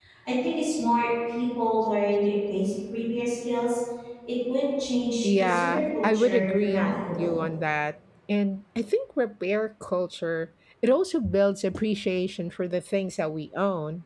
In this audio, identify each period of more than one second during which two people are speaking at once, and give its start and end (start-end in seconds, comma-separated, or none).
5.2-7.4